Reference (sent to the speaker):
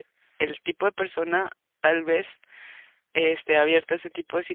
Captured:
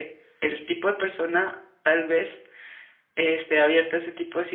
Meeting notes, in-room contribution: none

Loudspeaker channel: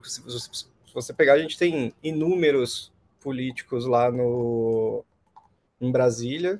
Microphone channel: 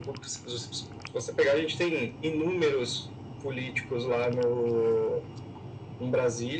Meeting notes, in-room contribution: none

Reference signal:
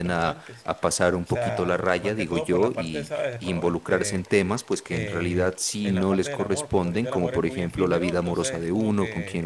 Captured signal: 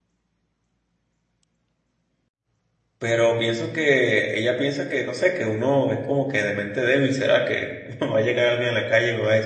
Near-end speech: present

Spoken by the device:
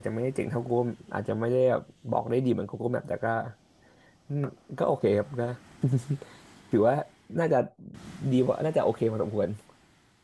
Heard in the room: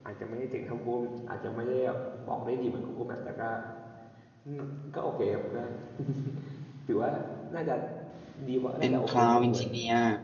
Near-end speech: present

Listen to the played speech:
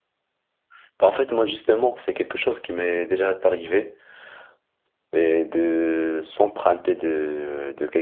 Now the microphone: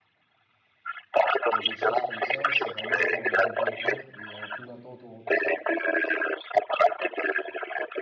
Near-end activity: present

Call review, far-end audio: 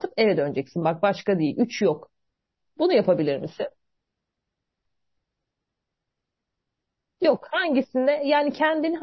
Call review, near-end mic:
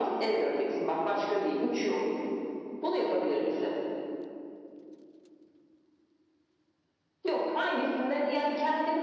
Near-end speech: none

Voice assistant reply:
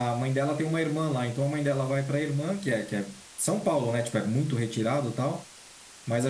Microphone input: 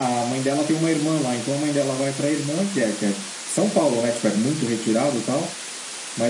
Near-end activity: none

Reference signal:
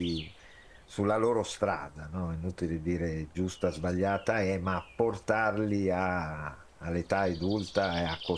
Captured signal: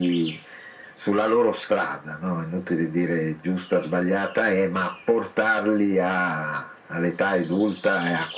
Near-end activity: none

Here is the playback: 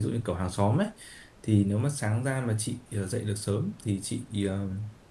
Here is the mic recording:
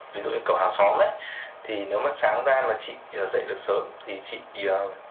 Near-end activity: none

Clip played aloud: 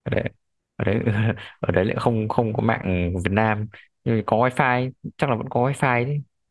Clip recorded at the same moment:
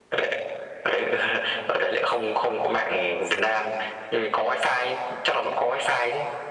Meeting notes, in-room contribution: none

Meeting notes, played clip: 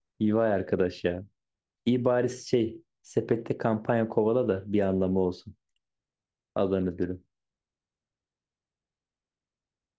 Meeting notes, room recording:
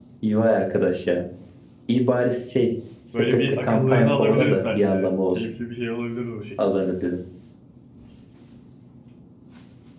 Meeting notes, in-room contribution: present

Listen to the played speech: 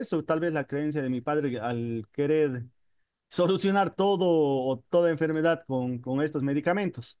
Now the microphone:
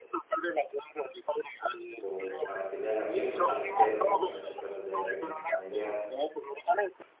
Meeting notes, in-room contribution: present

